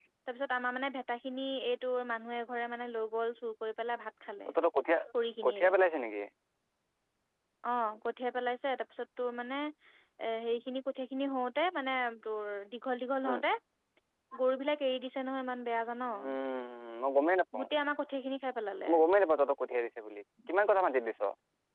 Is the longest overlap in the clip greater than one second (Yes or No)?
No